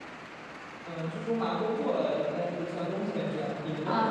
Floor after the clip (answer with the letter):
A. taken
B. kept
A